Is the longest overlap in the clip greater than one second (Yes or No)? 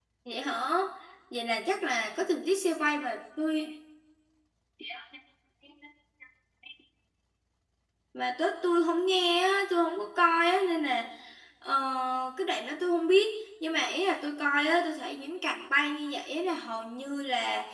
No